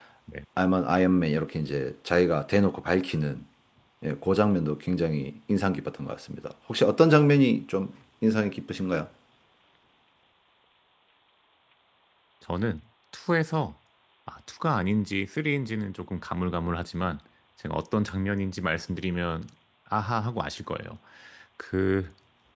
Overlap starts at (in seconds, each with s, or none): none